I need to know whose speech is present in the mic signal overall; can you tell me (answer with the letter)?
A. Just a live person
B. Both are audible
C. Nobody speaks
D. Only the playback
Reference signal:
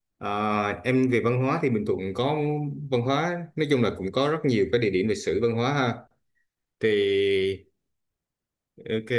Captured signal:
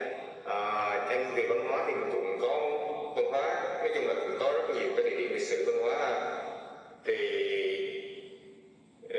D